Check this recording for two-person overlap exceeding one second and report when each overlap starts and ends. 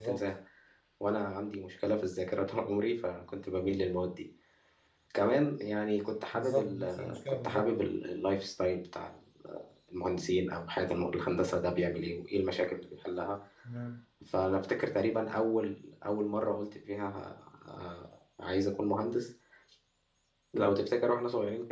6.3-7.7

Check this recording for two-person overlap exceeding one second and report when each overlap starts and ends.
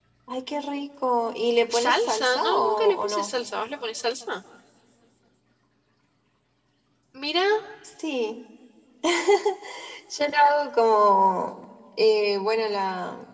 1.7-3.3

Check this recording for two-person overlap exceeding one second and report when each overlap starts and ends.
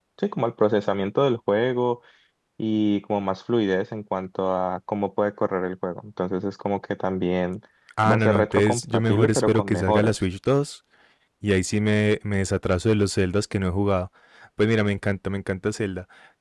8.1-10.1

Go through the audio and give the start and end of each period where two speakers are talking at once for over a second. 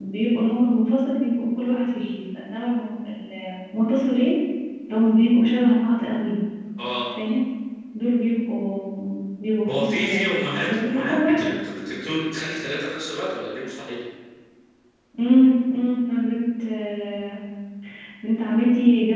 9.7-11.5

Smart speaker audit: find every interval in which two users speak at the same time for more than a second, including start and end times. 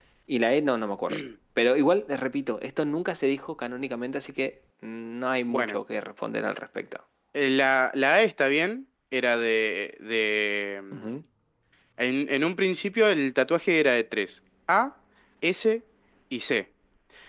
none

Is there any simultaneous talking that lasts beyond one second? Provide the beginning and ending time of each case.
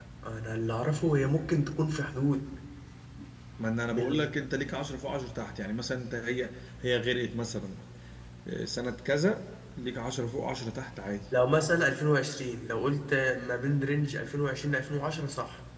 none

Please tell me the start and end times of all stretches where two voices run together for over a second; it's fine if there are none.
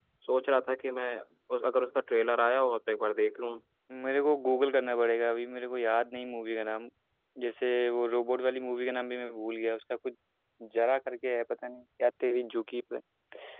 none

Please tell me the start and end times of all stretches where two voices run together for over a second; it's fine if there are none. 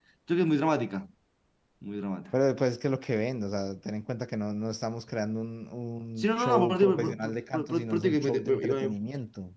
6.2-8.9

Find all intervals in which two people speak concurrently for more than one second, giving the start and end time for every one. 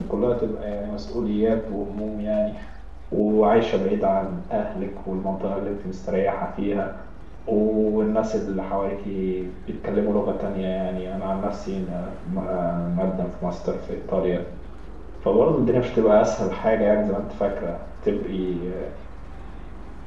none

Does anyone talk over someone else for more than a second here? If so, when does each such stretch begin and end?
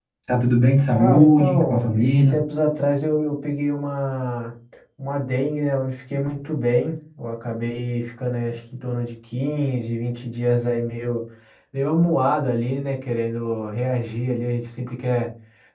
1.0-2.4

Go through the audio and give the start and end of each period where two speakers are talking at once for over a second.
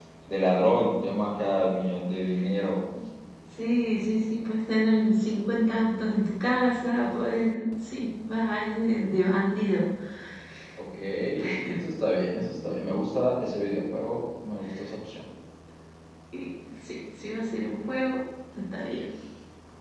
none

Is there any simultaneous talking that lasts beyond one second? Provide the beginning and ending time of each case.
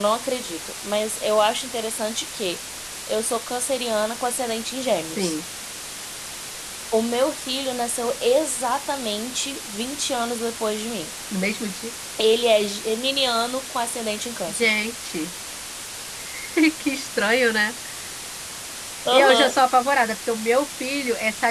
none

